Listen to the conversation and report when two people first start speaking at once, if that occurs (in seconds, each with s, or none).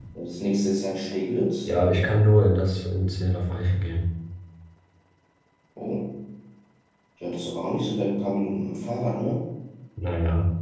none